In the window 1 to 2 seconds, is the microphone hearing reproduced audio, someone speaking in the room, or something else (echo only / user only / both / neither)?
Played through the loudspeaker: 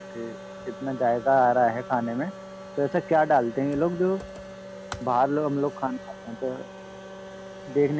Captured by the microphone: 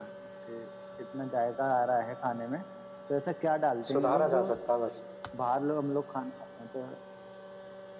echo only